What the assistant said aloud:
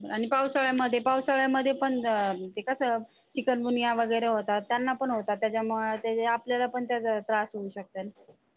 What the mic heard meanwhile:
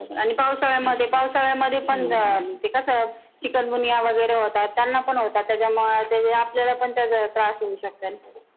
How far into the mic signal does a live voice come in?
1 s

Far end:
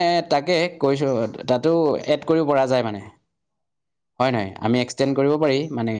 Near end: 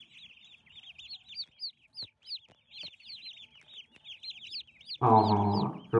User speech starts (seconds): 5 s

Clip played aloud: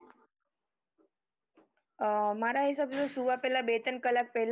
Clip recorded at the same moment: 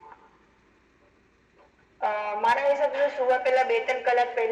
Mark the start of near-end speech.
none

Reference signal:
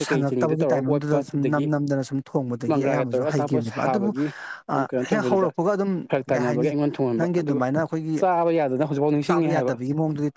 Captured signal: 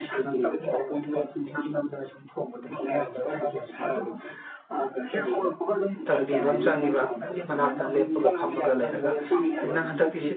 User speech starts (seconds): 6 s

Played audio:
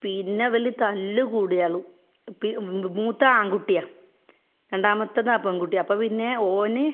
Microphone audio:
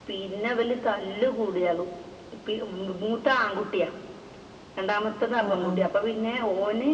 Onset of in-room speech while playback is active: 5 s

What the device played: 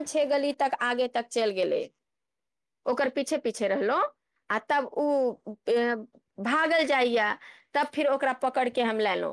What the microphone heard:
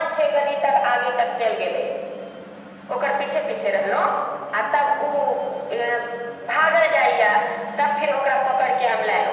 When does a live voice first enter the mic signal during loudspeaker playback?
none

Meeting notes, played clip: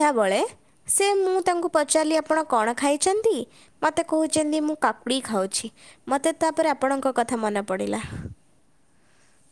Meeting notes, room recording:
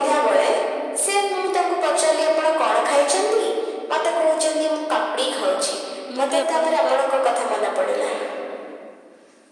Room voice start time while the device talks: 6 s

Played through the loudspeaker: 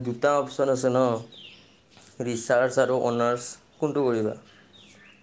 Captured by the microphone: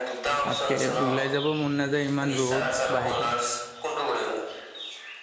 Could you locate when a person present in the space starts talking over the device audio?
0 s

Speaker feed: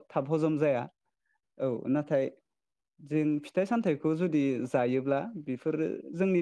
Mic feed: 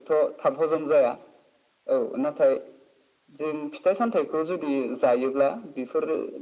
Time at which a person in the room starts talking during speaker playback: none

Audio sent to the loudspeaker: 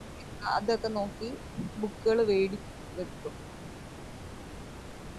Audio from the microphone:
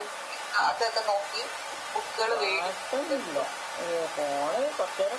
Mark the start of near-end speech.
2 s

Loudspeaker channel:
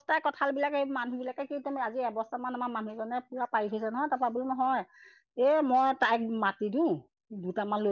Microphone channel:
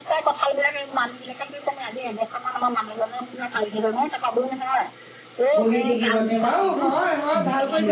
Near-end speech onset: 6 s

